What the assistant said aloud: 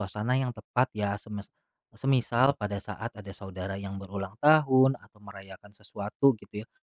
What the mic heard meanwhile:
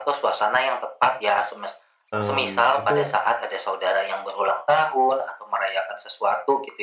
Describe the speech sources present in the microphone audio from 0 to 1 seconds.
echo only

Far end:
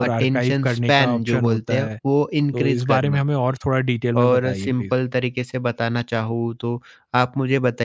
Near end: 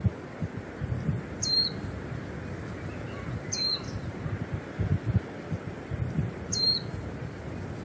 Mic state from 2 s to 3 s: neither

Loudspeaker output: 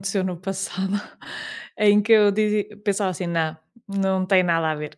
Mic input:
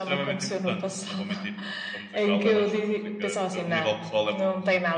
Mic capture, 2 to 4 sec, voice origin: both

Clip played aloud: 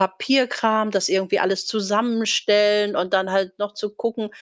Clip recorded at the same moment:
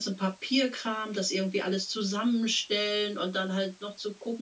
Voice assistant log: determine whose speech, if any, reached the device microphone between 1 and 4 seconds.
echo only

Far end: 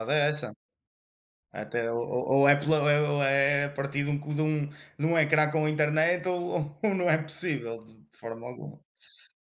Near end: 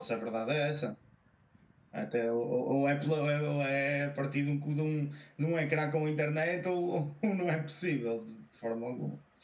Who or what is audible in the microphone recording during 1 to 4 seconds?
echo only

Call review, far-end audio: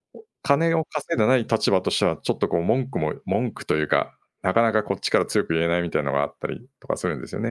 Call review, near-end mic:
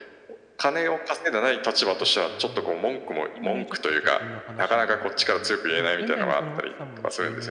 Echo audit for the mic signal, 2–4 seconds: both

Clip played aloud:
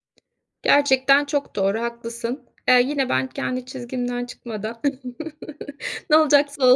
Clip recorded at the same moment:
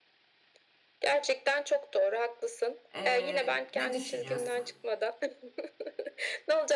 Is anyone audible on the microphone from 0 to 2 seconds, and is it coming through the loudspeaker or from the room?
echo only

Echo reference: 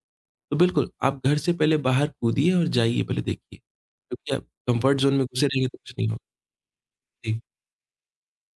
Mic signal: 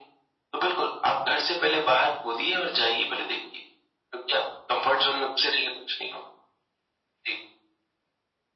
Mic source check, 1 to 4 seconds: echo only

